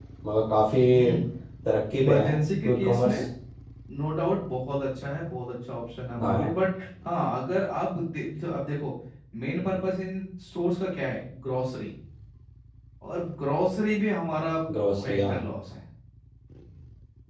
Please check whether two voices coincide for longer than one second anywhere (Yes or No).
Yes